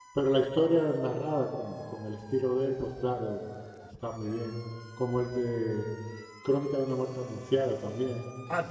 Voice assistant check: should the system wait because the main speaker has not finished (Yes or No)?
No